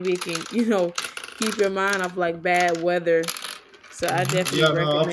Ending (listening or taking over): taking over